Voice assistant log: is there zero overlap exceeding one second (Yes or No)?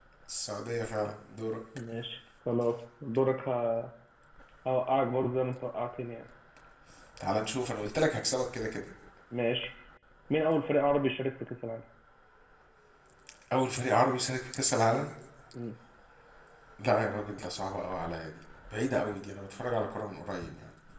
Yes